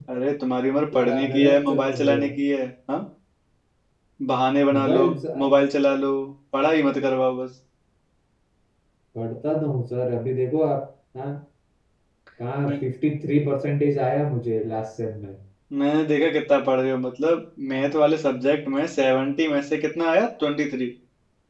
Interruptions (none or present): present